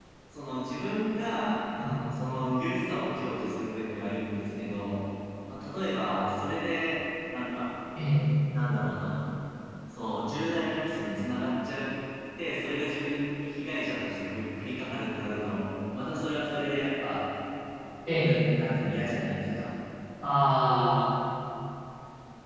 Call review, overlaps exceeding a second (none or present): none